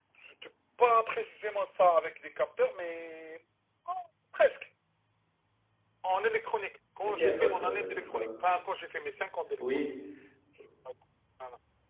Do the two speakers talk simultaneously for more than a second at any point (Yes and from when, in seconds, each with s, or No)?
Yes, from 7.0 s